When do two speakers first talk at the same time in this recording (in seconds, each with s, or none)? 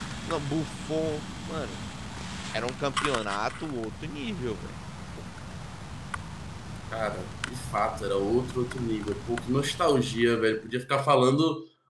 none